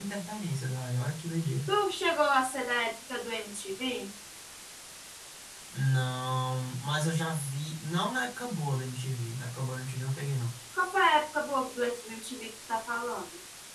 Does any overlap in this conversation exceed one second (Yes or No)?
No